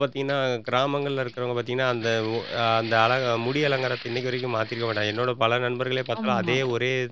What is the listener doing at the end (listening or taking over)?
listening